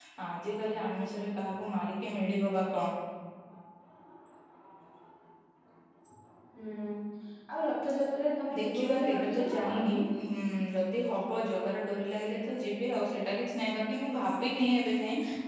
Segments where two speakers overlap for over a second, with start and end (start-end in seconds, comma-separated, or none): 8.5-10.1